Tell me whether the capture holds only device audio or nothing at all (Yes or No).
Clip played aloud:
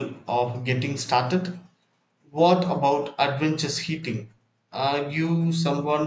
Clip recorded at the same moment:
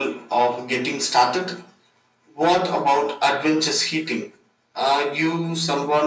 Yes